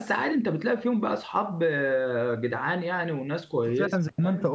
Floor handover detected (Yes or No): Yes